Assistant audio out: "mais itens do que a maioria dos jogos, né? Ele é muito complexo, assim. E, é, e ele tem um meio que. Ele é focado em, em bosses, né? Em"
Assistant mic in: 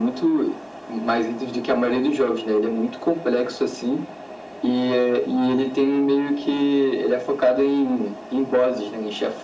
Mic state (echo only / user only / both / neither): echo only